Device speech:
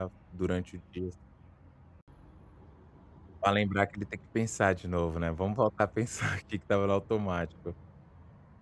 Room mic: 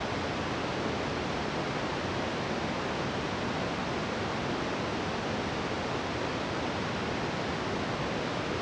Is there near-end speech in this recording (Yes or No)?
No